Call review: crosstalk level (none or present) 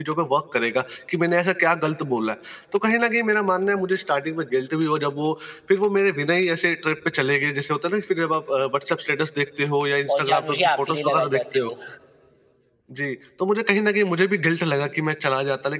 present